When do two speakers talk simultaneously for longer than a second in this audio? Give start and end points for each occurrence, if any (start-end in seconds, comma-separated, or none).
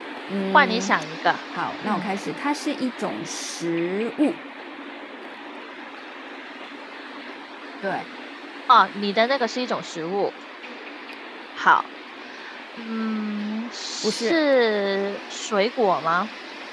none